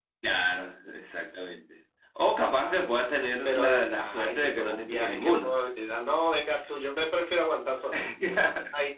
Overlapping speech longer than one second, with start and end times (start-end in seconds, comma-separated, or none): 3.5-5.5